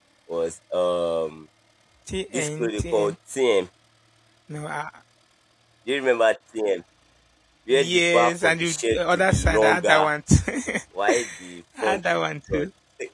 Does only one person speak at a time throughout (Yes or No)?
No